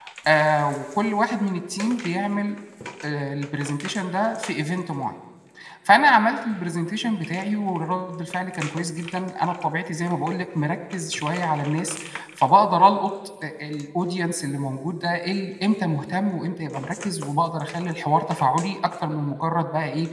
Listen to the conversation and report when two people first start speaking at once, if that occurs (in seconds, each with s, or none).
none